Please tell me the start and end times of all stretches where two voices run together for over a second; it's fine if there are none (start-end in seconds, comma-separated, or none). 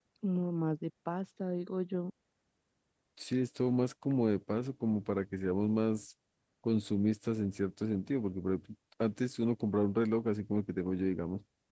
none